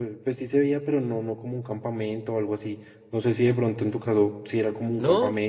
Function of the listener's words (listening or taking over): taking over